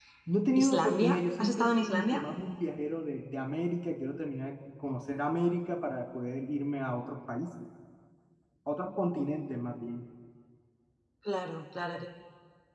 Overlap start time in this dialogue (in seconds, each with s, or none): 0.6 s